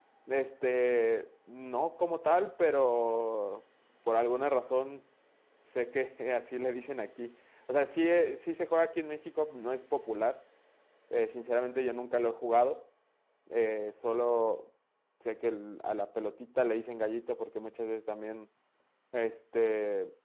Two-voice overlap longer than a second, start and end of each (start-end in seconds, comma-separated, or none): none